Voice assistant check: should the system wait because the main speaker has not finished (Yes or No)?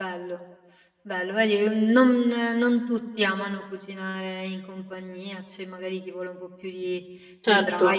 Yes